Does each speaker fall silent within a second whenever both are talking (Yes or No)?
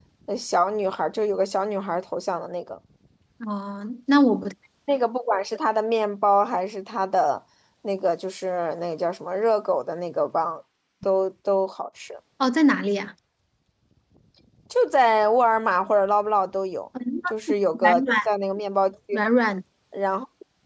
Yes